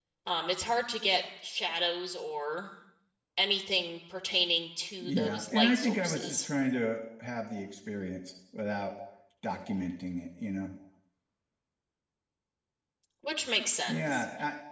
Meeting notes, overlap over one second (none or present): present